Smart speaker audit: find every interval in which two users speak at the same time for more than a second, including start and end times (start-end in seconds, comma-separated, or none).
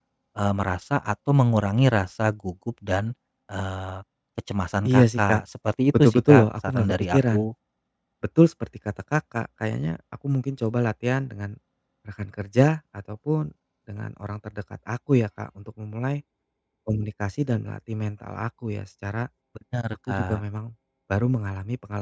6.0-7.5